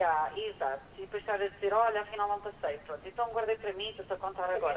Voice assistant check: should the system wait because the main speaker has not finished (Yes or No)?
No